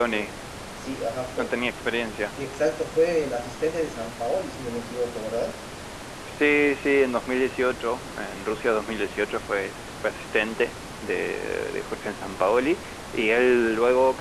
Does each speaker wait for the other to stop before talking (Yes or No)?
Yes